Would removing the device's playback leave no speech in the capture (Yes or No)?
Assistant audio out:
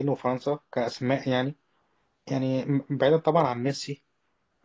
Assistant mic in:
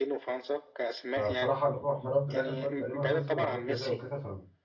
No